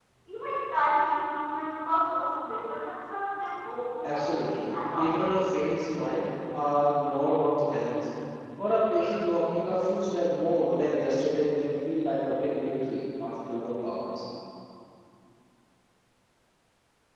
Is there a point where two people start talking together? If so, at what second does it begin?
4 s

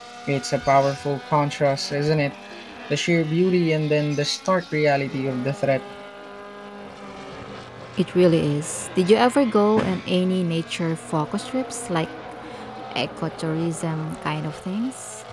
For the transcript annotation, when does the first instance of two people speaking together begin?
none

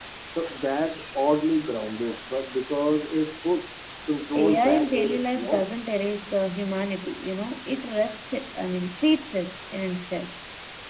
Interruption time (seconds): 4 s

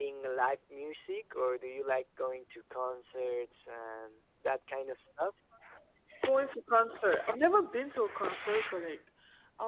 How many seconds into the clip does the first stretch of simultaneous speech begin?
none

